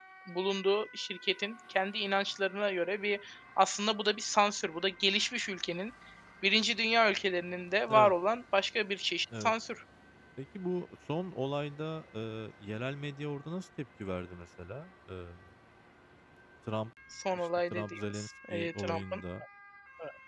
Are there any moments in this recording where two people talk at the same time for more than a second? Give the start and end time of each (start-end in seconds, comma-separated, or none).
17.3-19.2